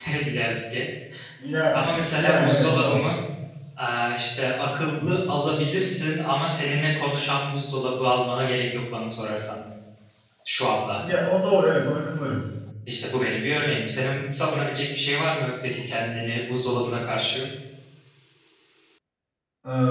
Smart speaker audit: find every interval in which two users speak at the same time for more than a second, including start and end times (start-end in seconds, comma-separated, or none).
1.7-3.1